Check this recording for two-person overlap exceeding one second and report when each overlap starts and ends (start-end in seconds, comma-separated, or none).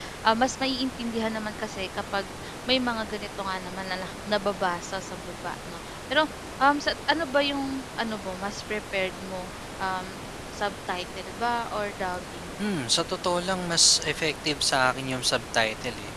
none